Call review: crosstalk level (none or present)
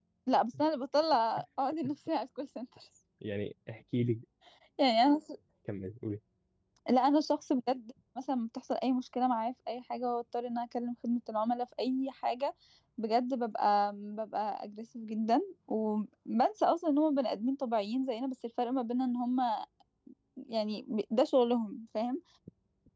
none